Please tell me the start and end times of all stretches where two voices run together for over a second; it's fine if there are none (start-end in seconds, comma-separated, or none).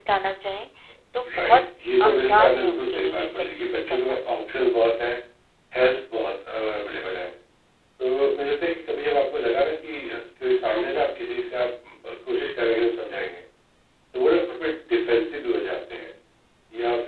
2.1-4.2